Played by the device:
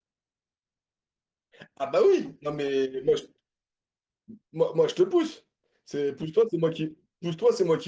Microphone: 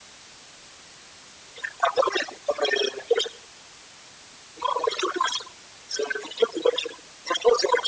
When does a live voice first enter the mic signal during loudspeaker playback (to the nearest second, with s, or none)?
none